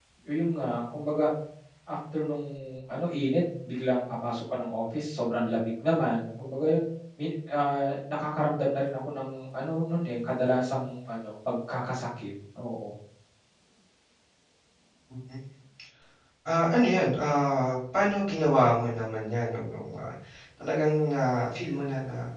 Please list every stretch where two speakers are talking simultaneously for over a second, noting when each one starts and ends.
none

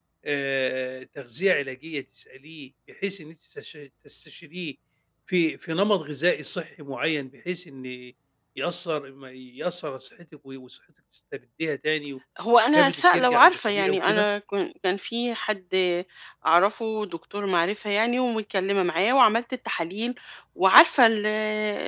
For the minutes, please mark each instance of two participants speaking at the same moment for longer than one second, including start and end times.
12.7-14.2

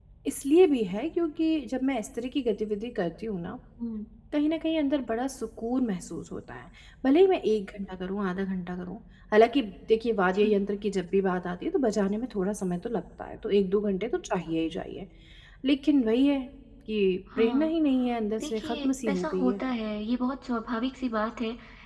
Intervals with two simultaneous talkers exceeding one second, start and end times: 18.4-19.6

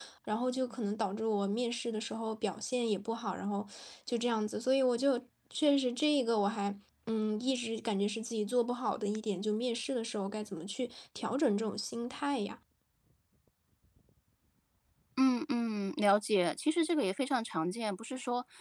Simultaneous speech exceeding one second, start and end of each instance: none

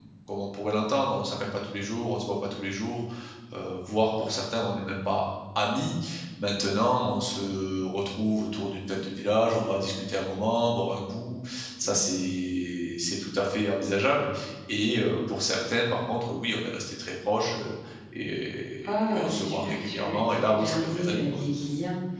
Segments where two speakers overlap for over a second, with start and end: 18.9-21.3

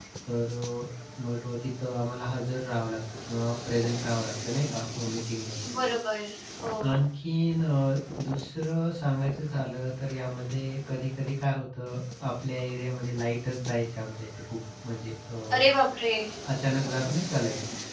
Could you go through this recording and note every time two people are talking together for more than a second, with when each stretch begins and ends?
none

